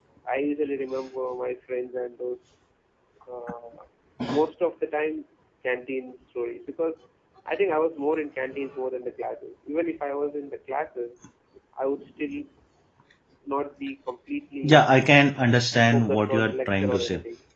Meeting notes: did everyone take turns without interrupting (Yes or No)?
No